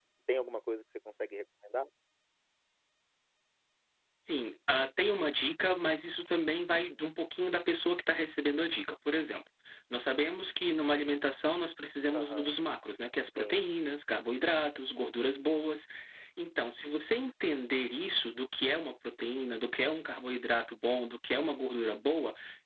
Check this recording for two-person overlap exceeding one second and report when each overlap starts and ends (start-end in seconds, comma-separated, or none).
none